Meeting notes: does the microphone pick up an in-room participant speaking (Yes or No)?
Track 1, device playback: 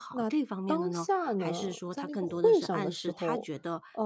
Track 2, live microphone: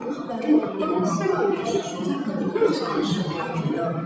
No